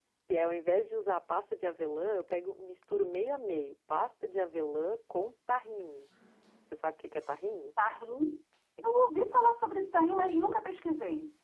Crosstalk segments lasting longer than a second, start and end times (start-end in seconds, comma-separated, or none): none